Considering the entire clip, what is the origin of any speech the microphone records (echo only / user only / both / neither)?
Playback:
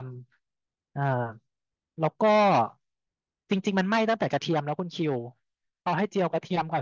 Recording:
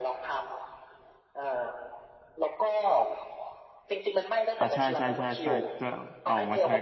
both